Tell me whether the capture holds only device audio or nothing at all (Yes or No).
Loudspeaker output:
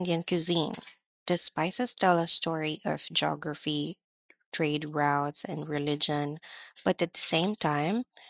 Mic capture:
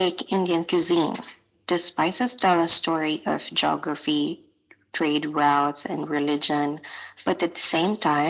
Yes